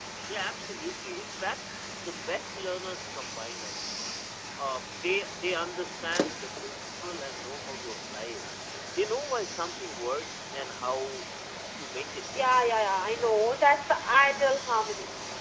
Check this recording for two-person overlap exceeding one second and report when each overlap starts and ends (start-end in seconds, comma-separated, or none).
none